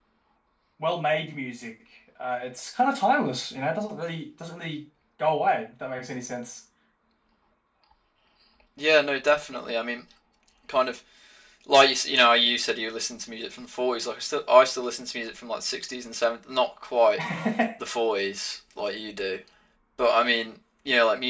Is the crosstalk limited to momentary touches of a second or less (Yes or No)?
Yes